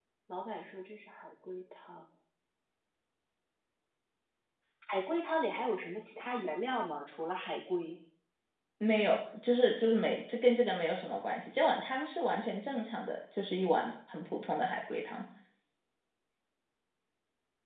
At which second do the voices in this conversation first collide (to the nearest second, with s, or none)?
none